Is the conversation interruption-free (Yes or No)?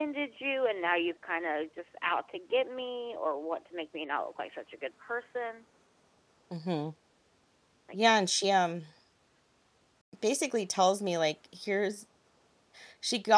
Yes